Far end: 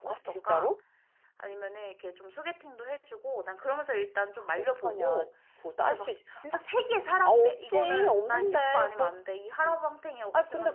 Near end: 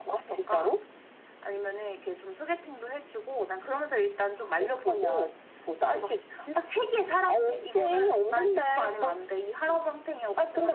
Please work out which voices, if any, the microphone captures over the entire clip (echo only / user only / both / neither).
echo only